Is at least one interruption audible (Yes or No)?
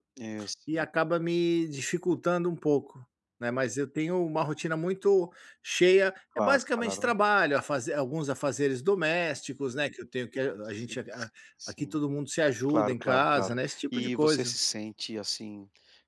Yes